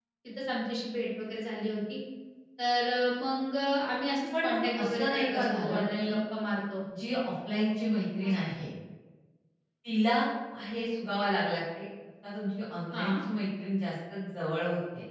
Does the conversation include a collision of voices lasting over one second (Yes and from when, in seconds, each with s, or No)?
Yes, from 4.3 s